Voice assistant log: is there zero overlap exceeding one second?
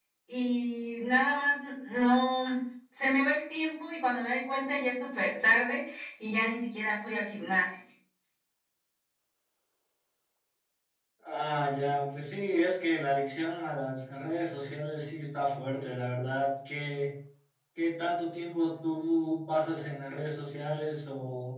Yes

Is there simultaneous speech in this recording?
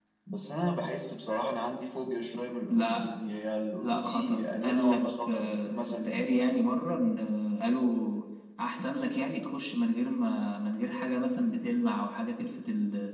Yes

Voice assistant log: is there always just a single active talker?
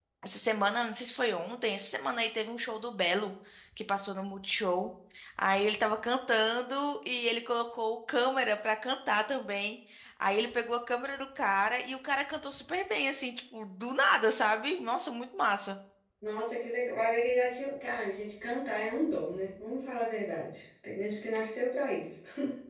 Yes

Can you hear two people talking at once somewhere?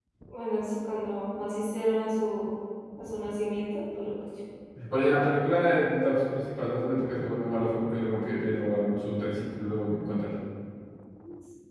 No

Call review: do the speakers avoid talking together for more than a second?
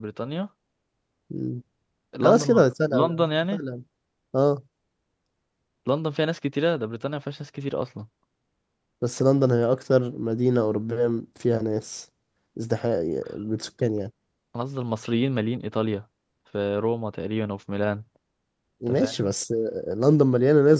No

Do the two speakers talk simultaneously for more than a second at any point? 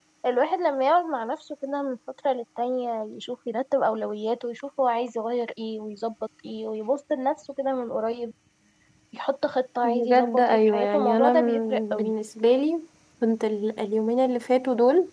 Yes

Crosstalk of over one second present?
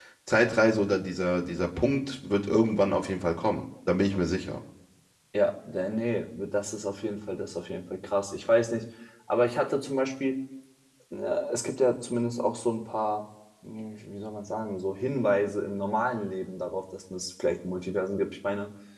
No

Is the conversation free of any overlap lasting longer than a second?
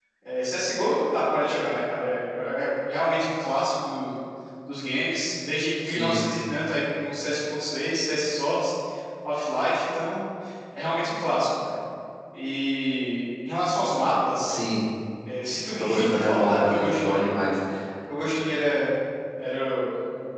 No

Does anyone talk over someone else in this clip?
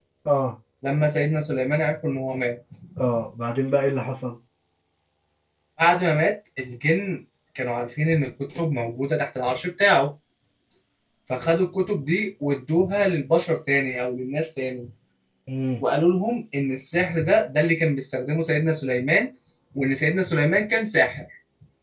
No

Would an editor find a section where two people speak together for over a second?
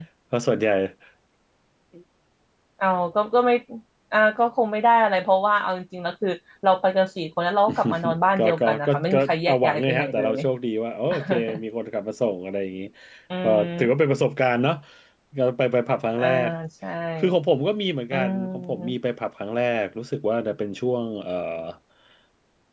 Yes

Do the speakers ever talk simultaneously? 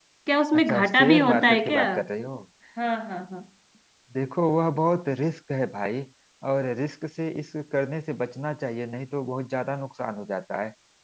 Yes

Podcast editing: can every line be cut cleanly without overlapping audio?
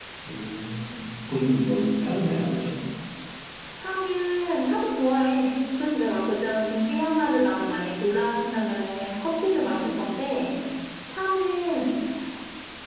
Yes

